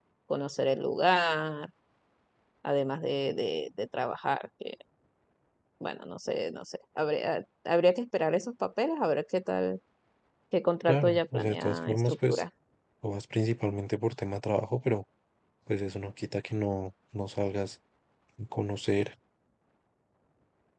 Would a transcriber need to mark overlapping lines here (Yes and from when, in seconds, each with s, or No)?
Yes, from 10.9 s